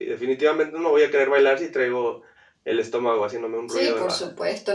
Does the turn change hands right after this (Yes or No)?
Yes